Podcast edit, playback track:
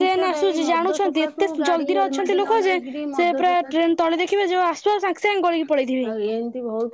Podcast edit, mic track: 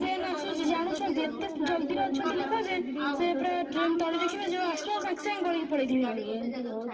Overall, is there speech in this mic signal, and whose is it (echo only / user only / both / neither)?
both